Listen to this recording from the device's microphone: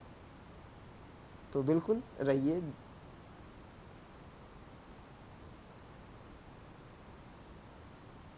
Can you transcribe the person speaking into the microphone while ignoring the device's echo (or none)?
तो बिल्कुल रहिए।